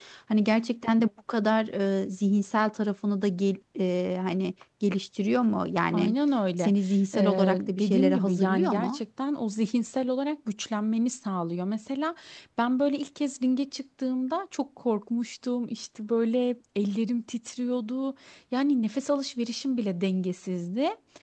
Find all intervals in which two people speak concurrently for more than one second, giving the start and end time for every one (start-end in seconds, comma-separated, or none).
7.1-9.0